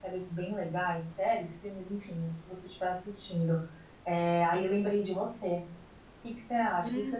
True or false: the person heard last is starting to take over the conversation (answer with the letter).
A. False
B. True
A